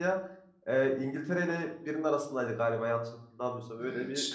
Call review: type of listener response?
taking over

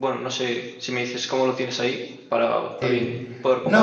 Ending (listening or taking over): taking over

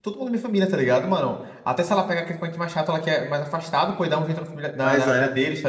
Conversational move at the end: listening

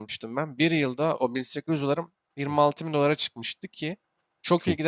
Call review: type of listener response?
listening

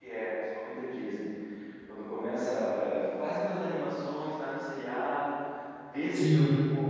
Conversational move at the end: listening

